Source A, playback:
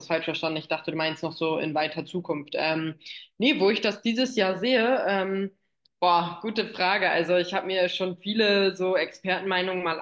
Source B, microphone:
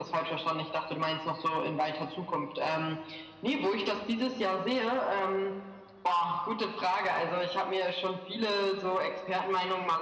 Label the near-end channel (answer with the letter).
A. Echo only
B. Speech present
A